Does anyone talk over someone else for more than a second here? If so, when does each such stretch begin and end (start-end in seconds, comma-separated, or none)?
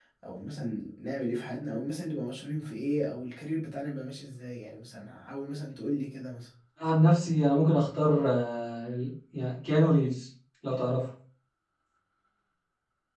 none